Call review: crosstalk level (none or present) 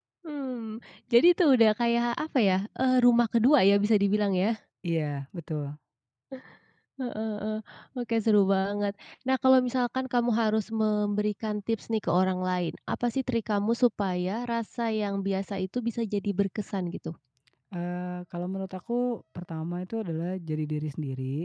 none